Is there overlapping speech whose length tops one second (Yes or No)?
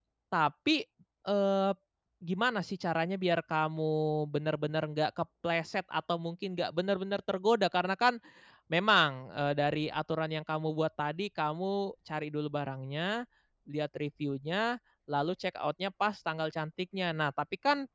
No